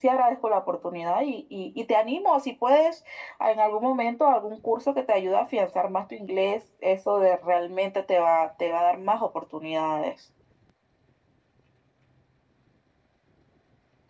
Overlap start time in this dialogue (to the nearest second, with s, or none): none